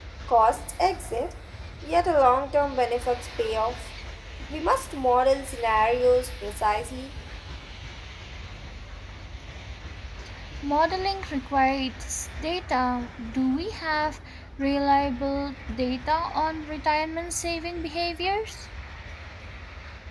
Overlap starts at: none

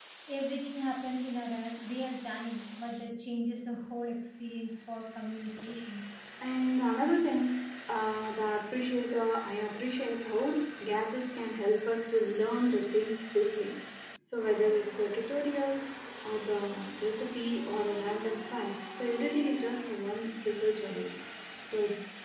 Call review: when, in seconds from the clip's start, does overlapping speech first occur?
none

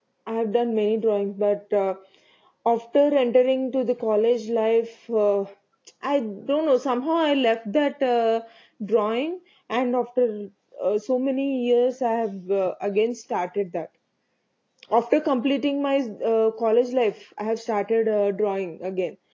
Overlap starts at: none

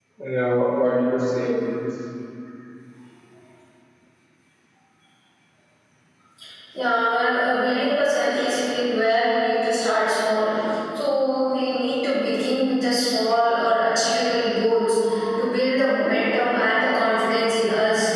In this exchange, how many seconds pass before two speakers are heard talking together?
none

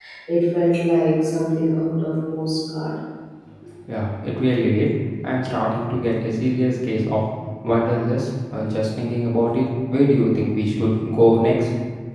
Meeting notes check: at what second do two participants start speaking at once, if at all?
none

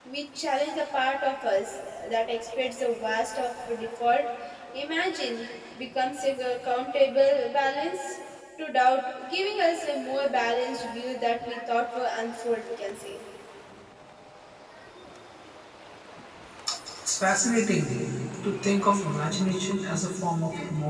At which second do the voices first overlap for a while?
none

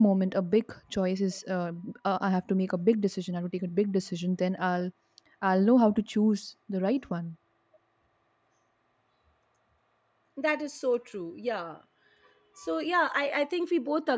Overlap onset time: none

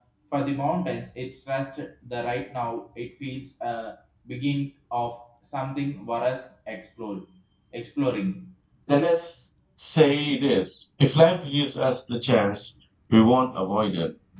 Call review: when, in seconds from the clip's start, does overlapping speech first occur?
none

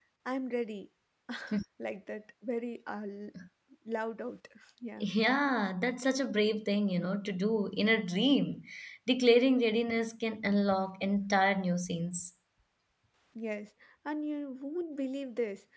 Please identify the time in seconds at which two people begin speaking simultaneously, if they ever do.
none

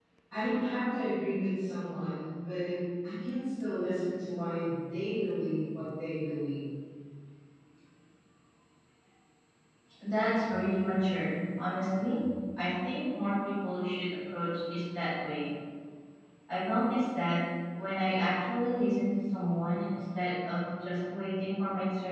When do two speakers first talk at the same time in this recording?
none

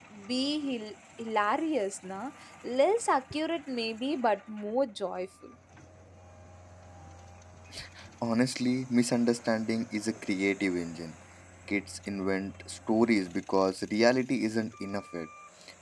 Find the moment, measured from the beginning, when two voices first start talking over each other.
none

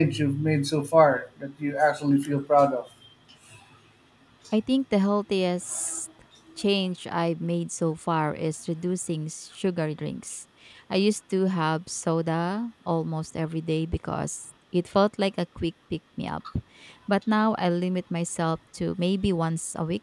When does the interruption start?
none

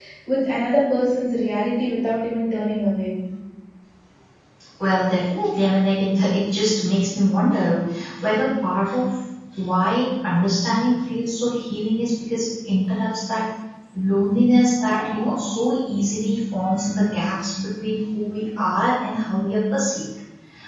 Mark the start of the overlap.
none

